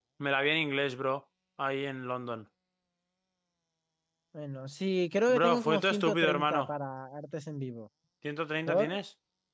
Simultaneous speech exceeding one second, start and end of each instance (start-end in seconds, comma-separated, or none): 5.3-6.7